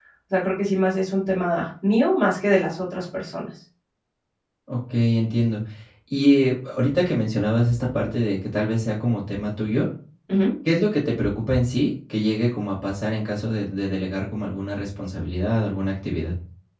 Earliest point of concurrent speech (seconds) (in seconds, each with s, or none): none